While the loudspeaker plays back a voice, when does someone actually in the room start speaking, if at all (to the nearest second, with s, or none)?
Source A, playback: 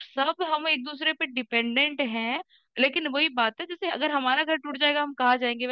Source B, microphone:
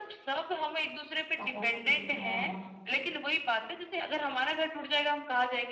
1 s